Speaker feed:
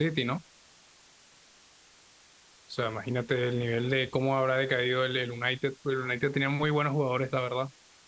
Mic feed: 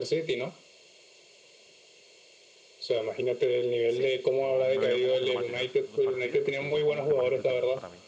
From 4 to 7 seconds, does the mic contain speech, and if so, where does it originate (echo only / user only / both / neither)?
both